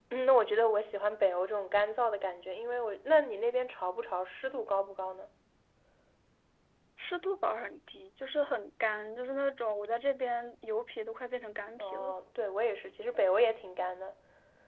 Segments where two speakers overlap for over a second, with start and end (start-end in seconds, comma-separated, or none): none